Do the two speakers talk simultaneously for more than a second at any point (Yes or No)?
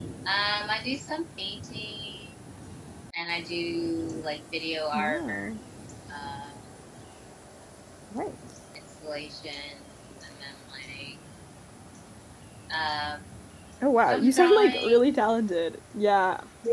Yes